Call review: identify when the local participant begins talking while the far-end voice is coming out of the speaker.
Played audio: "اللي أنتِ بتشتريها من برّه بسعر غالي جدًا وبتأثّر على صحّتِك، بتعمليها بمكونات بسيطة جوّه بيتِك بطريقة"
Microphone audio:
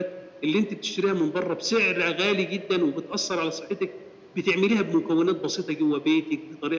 none

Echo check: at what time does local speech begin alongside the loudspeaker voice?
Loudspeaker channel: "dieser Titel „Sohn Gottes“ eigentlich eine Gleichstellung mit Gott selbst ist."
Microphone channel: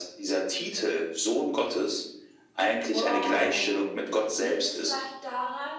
3 s

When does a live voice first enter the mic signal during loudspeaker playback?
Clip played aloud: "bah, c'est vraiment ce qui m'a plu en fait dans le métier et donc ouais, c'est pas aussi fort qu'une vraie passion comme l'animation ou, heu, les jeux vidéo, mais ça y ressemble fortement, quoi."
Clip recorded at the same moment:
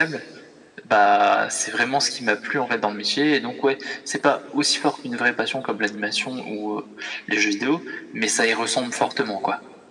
none

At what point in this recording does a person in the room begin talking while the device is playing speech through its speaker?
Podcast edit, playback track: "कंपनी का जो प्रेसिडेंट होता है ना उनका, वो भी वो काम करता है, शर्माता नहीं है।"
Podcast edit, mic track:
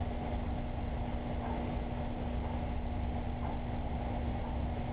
none

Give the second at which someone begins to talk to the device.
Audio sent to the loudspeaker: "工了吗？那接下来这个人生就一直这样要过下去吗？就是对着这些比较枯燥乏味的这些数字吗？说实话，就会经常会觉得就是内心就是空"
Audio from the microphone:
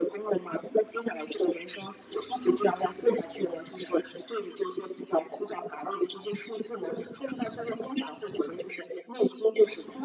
none

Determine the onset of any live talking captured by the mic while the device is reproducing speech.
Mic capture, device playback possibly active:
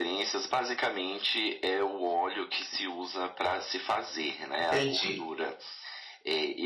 5 s

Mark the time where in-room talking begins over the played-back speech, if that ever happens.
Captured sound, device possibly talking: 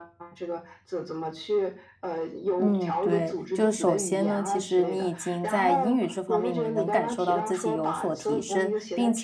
3 s

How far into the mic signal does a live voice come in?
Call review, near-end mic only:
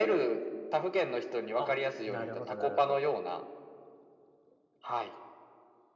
2 s

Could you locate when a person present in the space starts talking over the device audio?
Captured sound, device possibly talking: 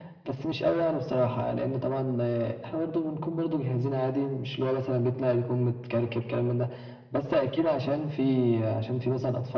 none

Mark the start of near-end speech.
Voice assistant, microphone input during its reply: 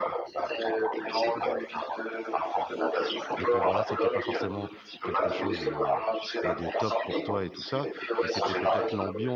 3 s

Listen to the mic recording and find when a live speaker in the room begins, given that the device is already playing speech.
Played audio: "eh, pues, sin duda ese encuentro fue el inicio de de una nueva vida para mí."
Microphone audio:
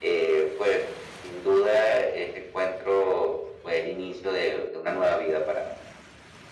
none

